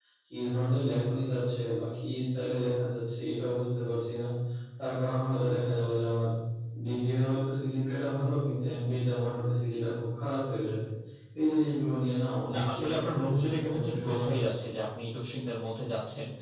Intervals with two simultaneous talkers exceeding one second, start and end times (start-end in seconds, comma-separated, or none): 12.5-14.5